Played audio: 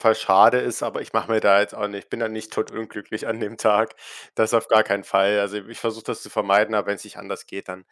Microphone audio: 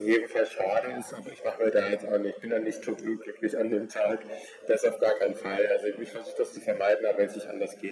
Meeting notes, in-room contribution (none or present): none